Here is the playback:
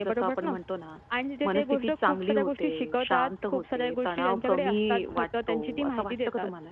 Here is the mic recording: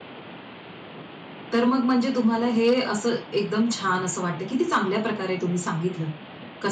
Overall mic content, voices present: user only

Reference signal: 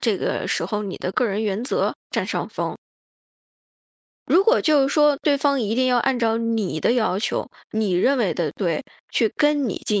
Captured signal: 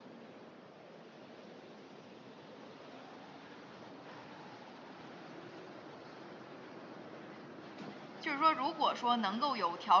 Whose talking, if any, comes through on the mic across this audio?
user only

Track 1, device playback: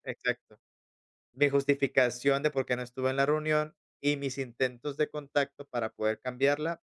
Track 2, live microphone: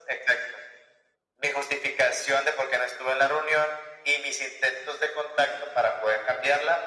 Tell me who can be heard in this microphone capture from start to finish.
echo only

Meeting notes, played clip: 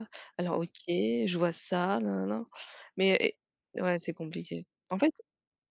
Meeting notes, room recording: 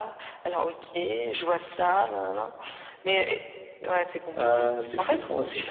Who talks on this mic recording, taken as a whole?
both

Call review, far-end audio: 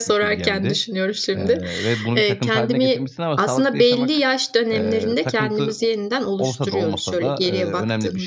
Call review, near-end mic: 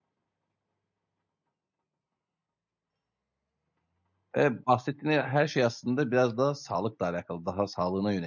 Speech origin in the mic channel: user only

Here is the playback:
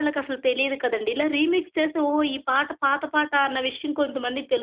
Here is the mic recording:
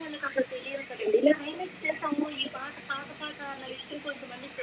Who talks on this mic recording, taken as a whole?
echo only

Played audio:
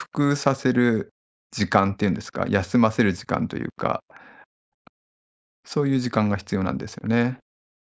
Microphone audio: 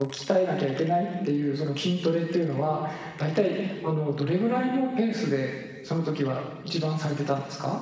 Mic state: user only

